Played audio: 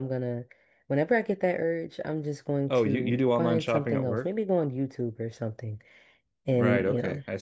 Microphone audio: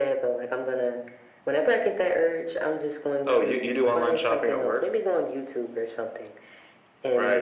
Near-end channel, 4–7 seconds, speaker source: echo only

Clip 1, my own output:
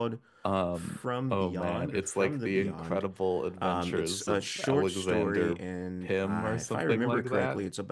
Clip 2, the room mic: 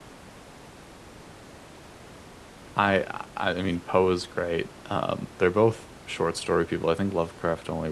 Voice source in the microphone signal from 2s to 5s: user only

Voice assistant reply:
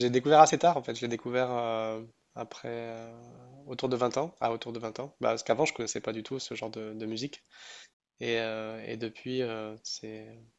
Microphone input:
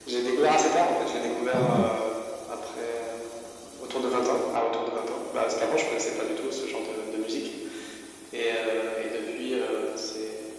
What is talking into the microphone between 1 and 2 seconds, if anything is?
both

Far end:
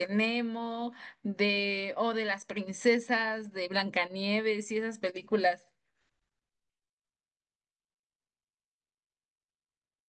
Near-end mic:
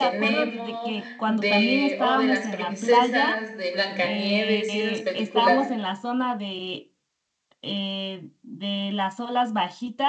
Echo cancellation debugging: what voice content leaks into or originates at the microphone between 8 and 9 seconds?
user only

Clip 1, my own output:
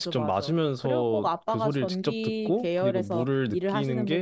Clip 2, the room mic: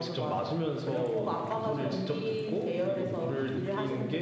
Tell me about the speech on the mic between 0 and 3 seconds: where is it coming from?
echo only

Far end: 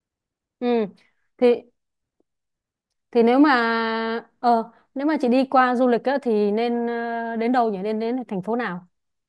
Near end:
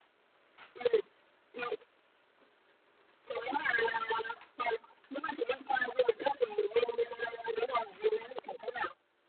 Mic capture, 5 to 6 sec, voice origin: echo only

